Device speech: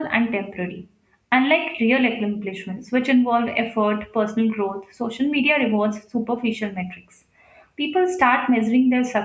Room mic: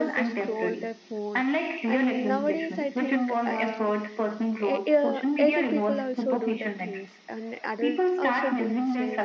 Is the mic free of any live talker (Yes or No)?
No